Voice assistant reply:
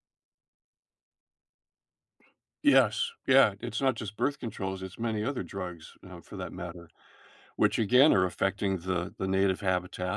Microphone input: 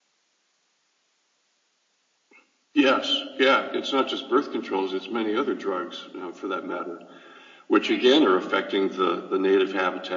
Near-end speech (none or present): present